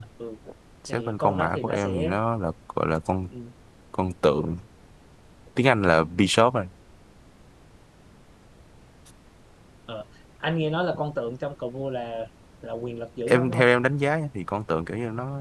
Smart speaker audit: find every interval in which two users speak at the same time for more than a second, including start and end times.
0.9-2.2

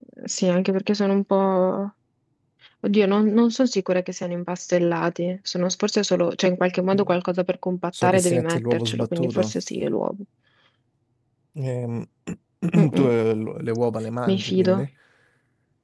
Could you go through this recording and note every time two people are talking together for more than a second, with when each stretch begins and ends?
8.0-9.5

